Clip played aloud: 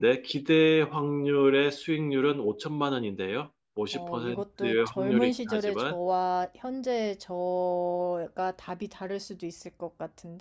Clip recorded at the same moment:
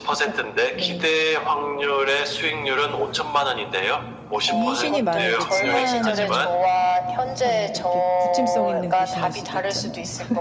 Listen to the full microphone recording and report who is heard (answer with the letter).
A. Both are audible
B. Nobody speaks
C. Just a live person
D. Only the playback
A